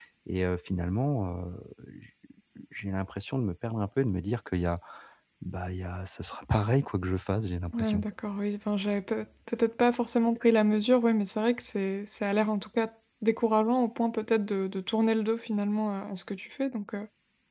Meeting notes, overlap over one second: none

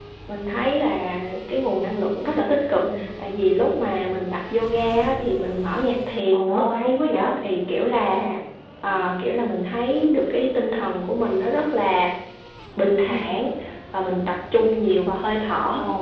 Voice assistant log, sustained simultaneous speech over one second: none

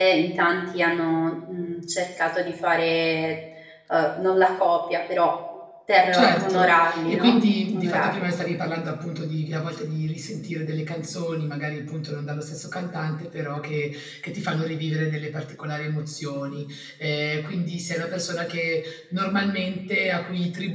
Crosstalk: present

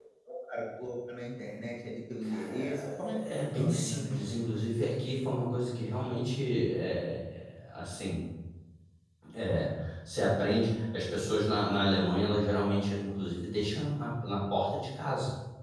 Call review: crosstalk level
present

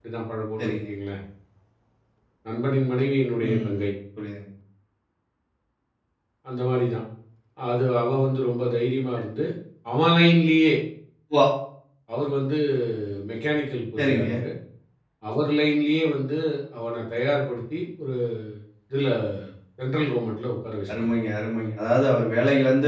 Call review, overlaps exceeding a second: none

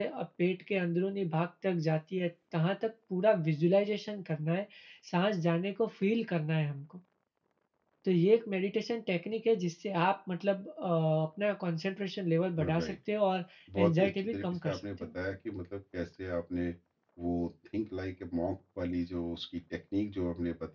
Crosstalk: present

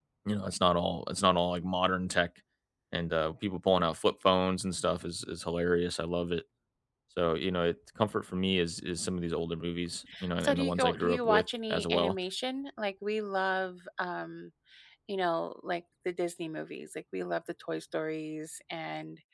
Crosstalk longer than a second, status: present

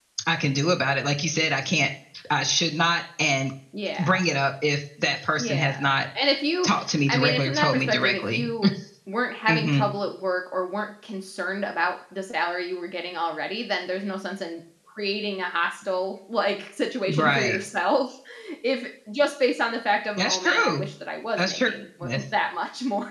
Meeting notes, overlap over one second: present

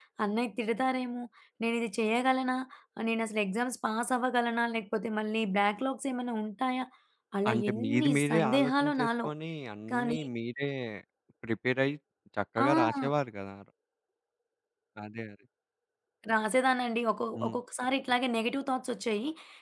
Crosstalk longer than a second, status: present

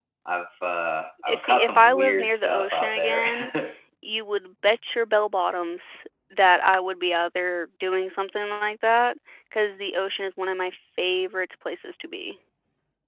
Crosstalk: present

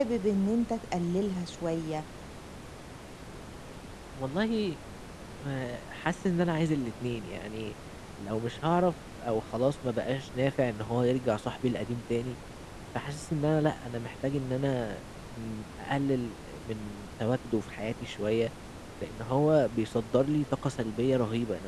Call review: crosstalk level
none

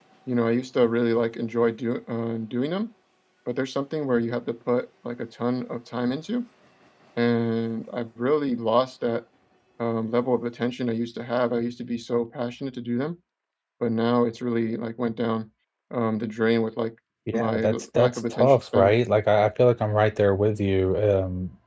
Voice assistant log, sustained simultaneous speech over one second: present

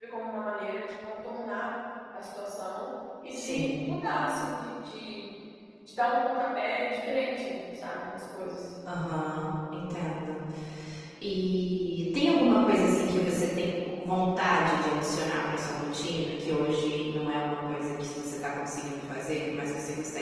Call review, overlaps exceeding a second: none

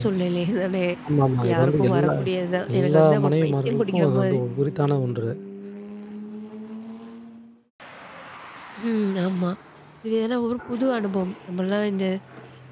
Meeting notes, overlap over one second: present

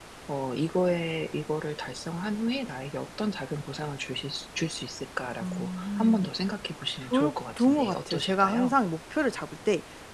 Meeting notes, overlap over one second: present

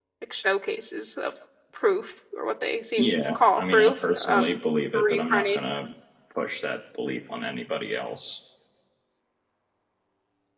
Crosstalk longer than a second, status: present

